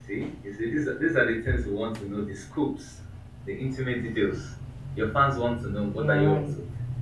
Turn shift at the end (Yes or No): Yes